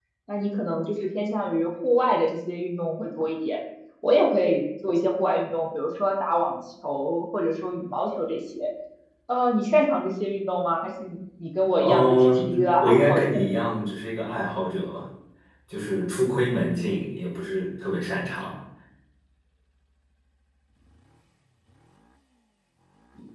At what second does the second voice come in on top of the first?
11.8 s

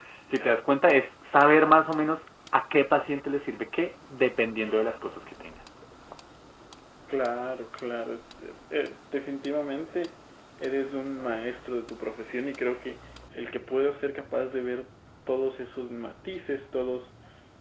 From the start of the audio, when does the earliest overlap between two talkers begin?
none

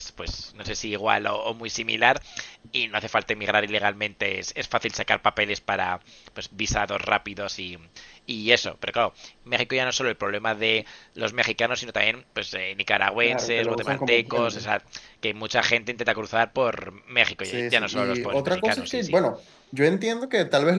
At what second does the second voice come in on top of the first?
13.2 s

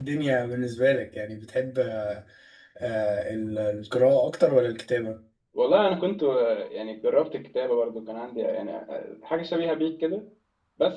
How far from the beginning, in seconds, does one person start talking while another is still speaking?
none

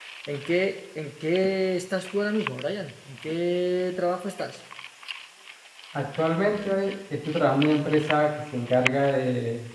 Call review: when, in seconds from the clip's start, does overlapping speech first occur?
none

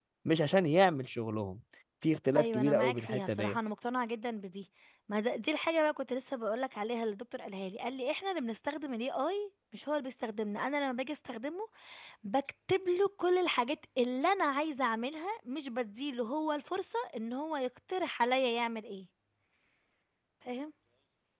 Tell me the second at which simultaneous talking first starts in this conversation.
2.4 s

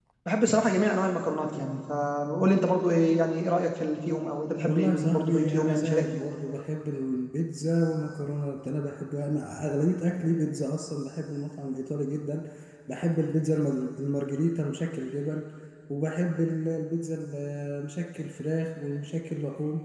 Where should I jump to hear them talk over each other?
4.6 s

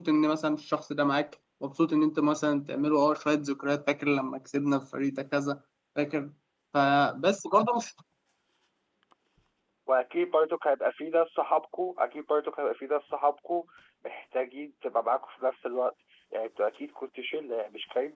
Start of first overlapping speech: none

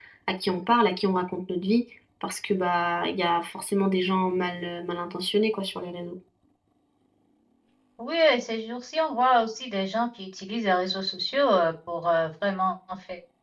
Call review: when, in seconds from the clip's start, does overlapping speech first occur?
none

